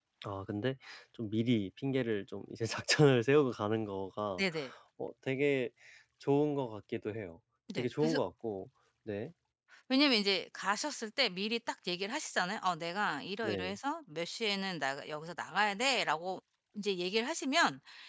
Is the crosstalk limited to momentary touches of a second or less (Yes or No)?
Yes